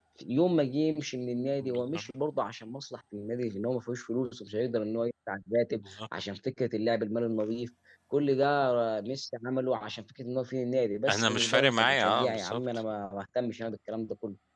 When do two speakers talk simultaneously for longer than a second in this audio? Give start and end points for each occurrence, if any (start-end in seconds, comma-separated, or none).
11.1-12.6